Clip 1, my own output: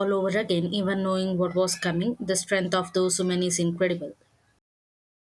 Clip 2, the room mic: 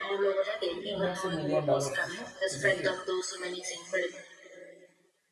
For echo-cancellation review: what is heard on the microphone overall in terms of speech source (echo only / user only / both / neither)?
both